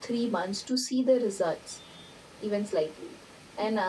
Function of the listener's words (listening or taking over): listening